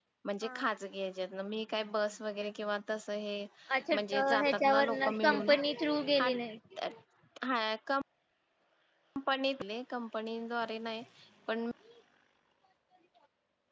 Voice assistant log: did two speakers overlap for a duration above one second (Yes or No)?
Yes